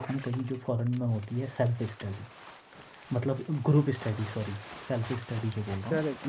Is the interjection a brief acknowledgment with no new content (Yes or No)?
No